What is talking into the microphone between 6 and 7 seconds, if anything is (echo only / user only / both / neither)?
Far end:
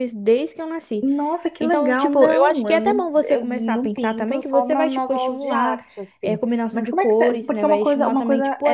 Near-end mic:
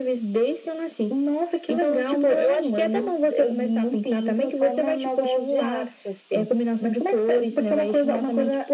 echo only